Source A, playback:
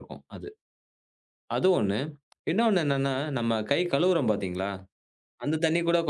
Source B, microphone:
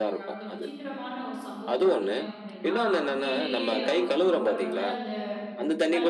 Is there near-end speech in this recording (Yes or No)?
Yes